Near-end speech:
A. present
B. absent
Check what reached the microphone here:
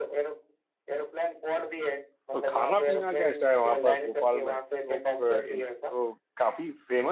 A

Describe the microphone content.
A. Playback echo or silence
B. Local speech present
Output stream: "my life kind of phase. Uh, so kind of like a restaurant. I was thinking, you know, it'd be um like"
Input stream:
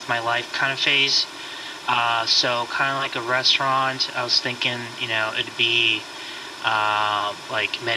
A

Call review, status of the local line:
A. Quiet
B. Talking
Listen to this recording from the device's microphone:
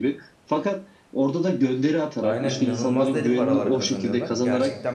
B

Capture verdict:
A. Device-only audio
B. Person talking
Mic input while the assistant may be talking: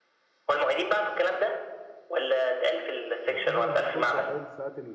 B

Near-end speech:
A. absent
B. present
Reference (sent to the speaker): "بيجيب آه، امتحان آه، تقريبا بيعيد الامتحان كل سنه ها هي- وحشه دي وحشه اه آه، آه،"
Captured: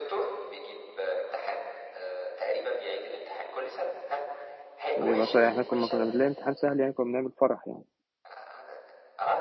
B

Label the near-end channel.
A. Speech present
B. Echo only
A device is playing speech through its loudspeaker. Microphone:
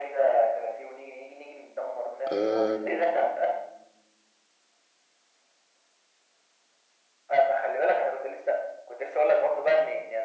A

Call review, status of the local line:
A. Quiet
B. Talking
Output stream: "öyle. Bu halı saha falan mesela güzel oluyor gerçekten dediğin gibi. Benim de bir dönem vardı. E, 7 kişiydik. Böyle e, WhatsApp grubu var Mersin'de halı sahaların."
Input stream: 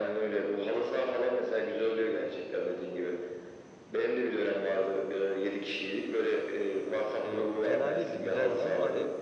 B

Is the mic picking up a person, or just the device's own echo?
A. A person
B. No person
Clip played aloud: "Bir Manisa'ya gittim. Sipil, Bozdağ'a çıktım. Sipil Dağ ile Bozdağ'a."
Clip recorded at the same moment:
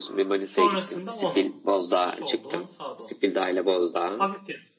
A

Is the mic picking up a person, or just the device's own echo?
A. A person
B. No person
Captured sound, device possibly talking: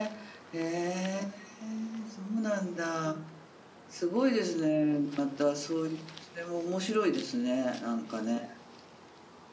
A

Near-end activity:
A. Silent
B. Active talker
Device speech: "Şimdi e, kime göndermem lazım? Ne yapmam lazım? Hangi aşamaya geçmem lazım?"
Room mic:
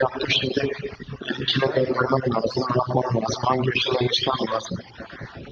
B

